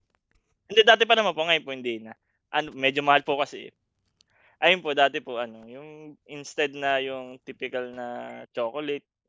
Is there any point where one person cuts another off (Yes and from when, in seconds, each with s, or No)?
No